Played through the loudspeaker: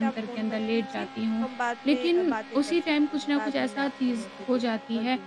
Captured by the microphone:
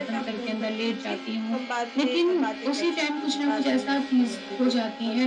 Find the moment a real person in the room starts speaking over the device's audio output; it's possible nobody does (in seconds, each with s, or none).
none